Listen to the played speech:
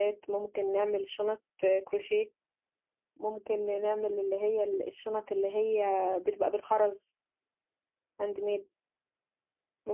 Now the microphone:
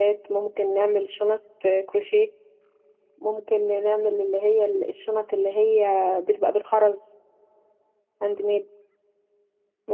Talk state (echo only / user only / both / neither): echo only